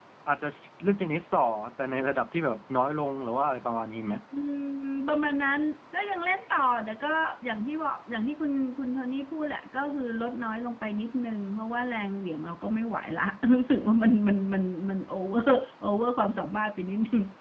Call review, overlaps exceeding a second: none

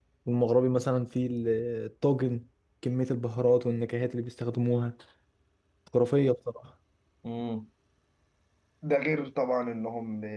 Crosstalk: none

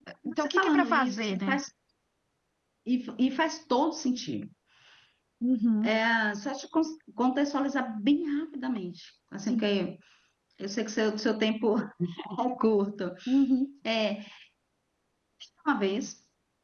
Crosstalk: present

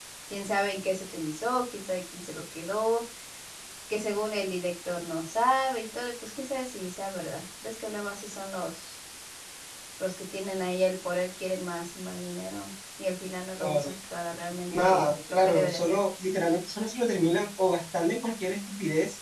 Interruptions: present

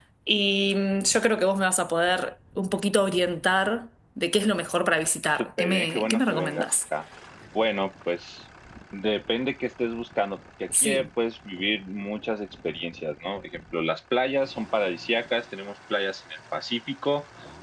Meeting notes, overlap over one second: present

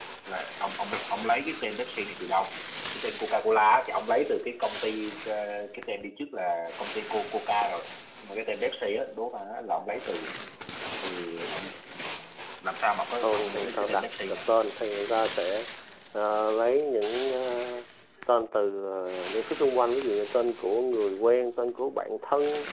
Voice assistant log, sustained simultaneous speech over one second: present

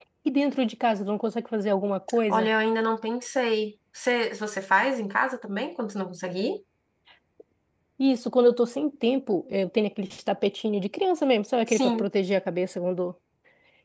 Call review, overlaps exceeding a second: none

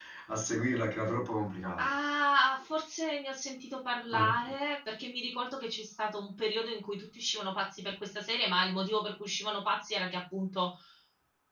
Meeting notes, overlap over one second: none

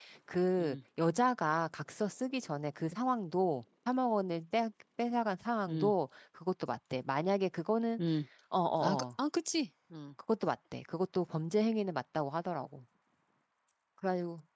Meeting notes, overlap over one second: none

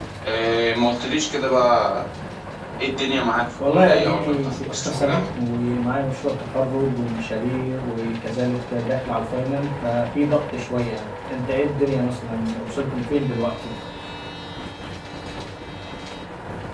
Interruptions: present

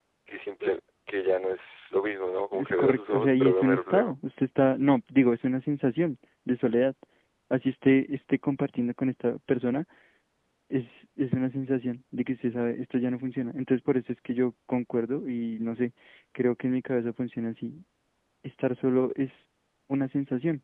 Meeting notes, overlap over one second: present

